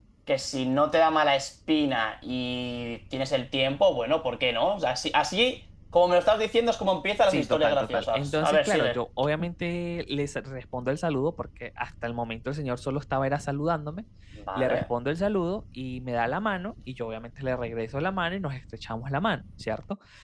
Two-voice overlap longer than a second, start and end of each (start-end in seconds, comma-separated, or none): 7.3-9.0